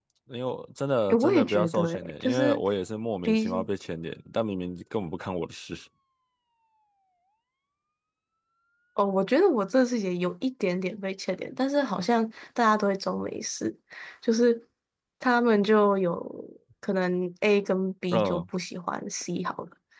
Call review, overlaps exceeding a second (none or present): present